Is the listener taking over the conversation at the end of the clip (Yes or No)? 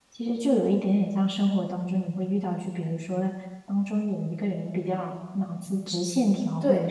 No